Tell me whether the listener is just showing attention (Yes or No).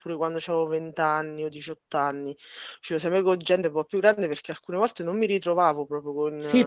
No